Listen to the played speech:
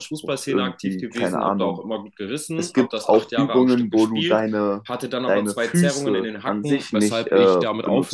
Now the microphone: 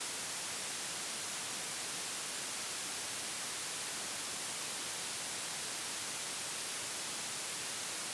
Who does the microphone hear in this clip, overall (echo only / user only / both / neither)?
neither